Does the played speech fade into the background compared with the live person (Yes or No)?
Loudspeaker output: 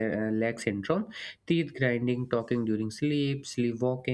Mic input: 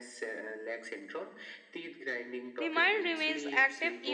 Yes